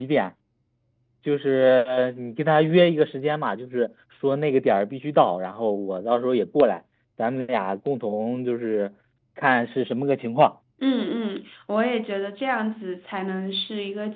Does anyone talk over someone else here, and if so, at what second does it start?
none

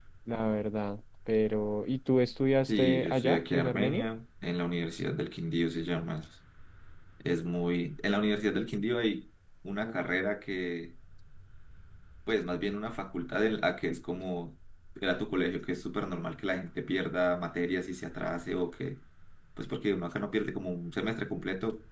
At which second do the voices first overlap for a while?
2.7 s

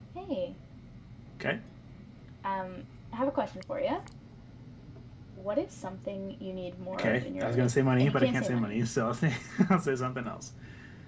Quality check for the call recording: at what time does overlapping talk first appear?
6.9 s

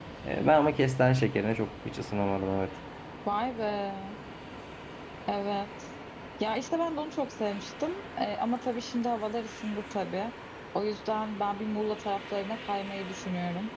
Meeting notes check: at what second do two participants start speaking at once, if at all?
none

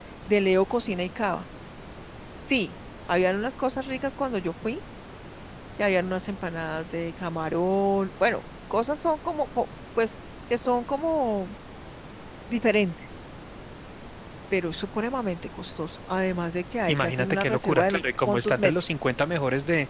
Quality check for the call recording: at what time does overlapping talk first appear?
16.9 s

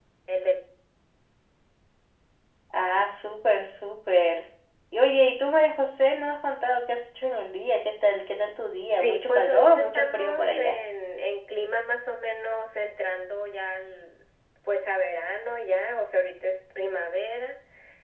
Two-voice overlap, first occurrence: 8.9 s

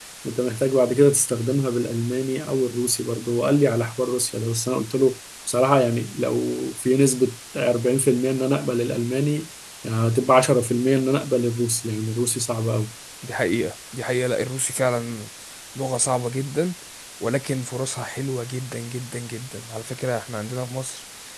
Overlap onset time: none

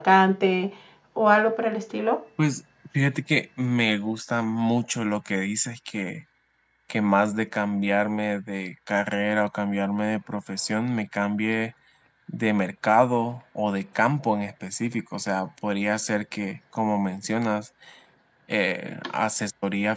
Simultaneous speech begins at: none

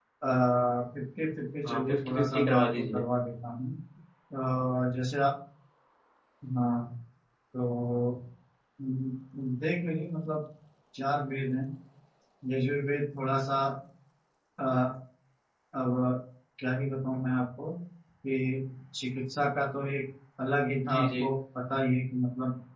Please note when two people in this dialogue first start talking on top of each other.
1.6 s

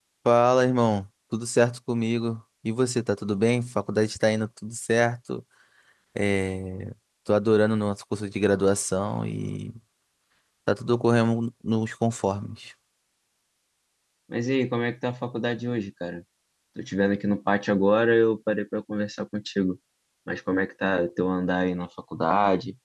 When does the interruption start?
none

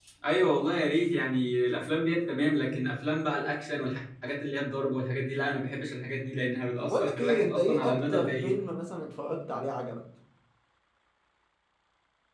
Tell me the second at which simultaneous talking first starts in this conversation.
6.8 s

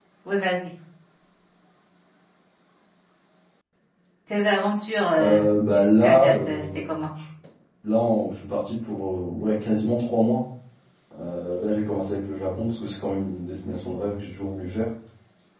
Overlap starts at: 5.2 s

